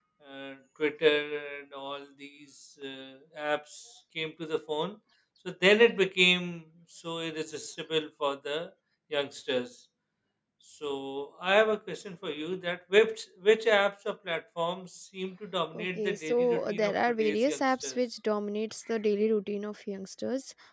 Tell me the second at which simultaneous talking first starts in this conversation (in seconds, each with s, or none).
15.7 s